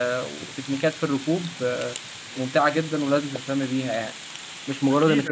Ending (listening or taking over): taking over